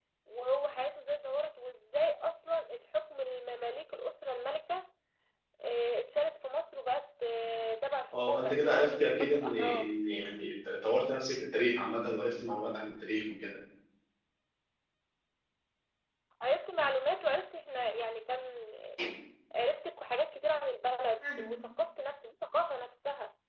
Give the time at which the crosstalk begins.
8 s

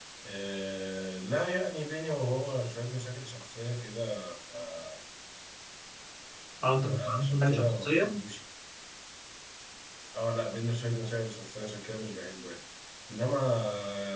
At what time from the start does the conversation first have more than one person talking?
7 s

